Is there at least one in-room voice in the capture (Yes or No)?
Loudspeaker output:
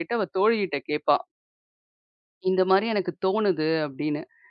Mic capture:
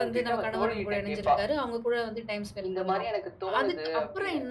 Yes